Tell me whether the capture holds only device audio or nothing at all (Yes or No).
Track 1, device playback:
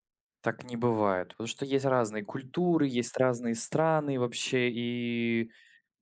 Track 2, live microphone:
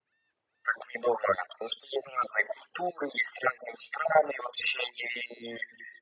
Yes